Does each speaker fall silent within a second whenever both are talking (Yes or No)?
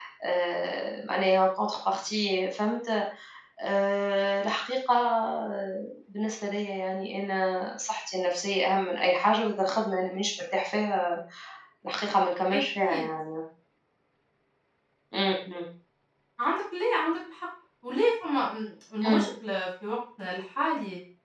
Yes